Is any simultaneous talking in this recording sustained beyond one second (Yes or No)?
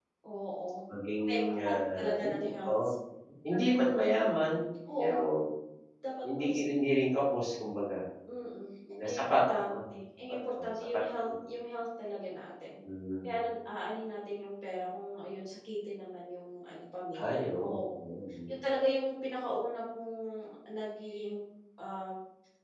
Yes